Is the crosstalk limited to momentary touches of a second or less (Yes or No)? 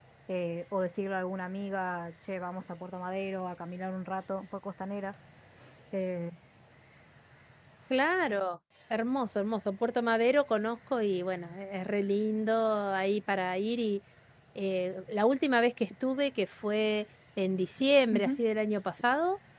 Yes